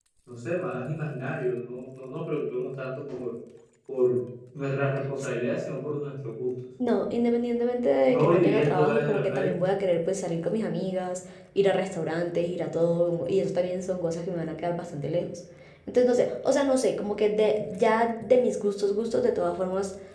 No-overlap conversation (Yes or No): No